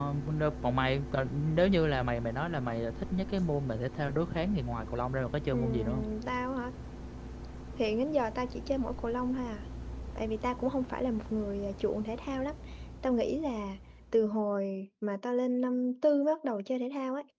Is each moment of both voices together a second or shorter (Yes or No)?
Yes